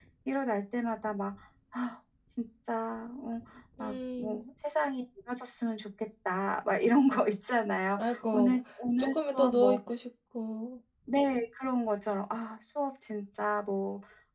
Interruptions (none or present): present